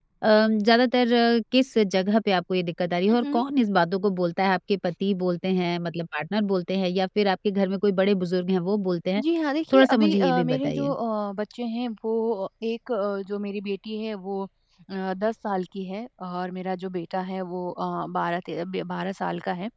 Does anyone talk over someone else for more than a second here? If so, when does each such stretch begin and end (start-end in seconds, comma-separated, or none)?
9.7-10.9